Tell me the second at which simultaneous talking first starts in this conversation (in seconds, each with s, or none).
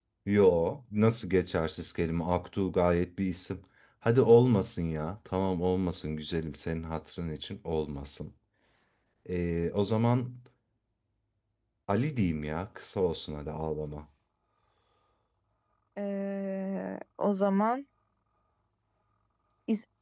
none